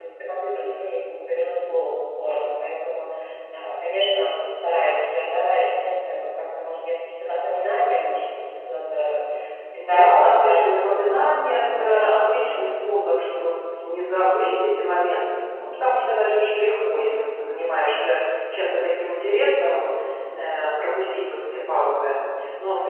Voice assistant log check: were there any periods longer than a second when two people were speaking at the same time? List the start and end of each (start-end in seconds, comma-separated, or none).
9.8-12.7